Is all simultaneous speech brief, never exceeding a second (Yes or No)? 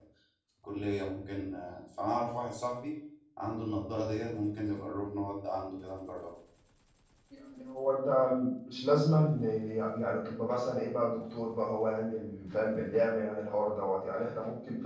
Yes